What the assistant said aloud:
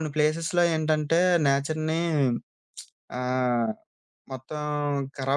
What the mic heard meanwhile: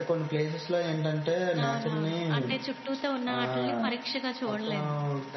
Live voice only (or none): అవునవును. అంటే చుట్టూతో ఉన్న ఆటిల్ని పరీక్షగా చూడలేము.